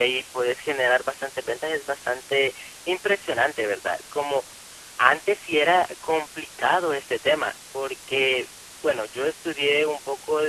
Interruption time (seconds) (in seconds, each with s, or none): none